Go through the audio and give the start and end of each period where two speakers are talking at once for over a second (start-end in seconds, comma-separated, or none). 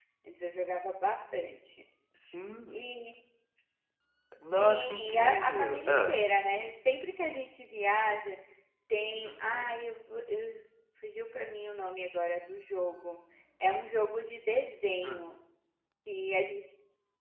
4.5-6.2